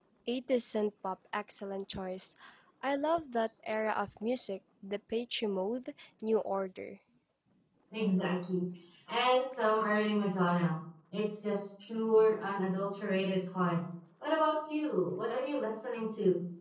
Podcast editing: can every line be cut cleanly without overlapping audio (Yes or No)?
Yes